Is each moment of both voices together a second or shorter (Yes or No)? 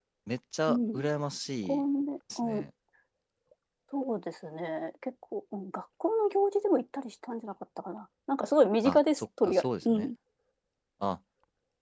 No